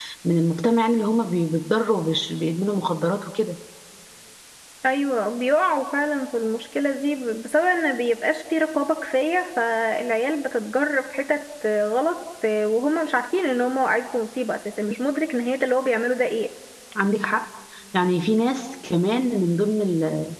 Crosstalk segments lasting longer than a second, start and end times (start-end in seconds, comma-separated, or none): none